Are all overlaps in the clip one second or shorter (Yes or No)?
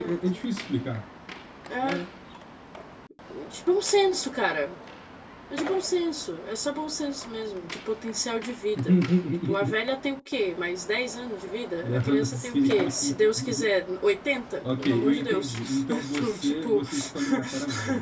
No